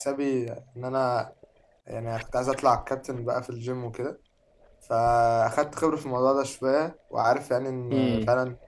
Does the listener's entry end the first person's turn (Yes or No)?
No